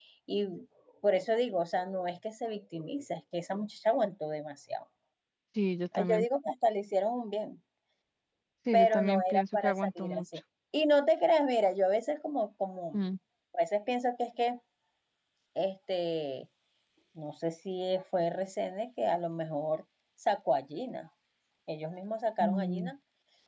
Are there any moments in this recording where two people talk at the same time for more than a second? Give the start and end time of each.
8.7-10.2

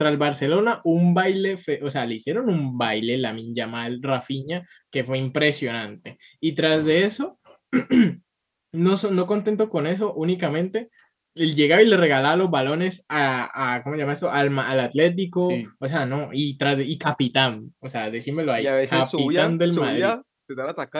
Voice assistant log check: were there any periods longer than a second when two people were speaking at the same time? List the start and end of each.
18.6-20.1

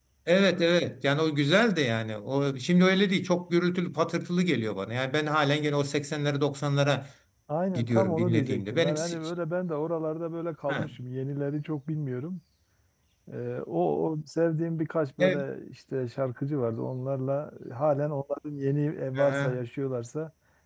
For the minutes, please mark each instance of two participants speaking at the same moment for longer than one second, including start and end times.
7.8-9.2

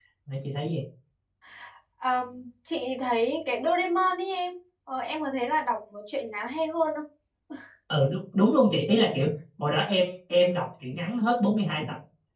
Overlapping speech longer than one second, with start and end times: none

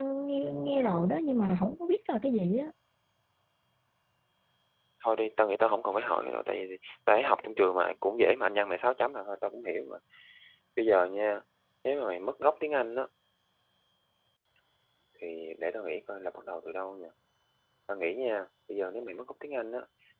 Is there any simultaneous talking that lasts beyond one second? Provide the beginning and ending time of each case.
none

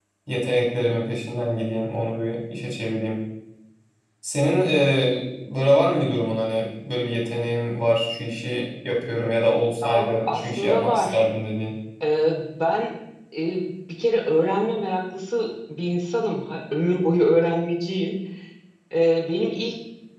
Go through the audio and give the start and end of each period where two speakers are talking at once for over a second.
9.8-11.2

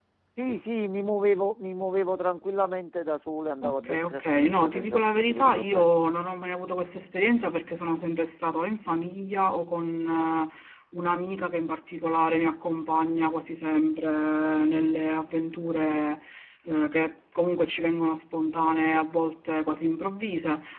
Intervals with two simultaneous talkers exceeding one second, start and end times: 3.6-5.9

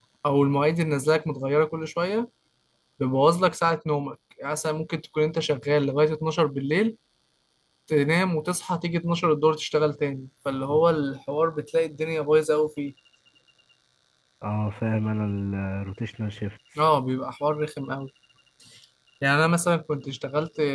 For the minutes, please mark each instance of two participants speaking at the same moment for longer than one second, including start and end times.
none

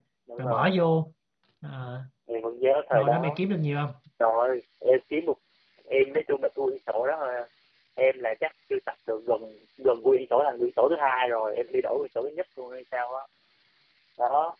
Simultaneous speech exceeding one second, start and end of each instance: none

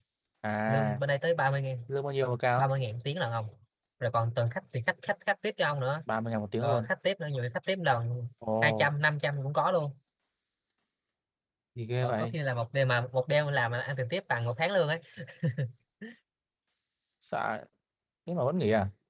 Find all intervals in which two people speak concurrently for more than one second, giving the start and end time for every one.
none

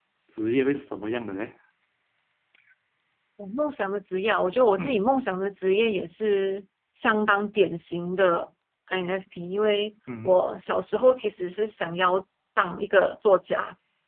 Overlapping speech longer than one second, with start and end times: none

